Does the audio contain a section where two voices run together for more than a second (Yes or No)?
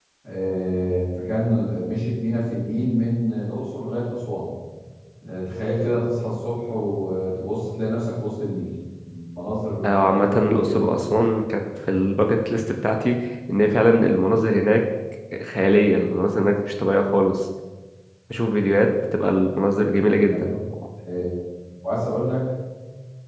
Yes